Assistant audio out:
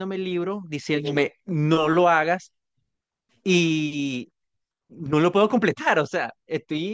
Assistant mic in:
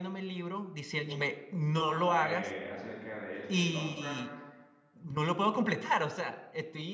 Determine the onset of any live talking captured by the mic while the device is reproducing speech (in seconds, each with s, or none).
1.8 s